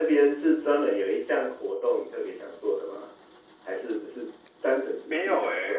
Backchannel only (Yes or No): No